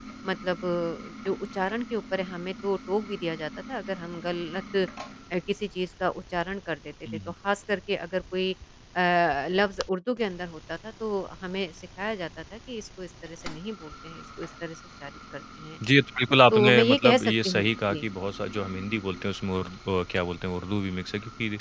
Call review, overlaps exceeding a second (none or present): present